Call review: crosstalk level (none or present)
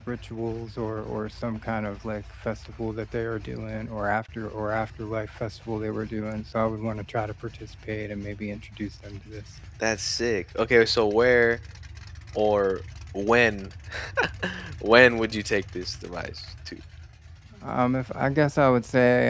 none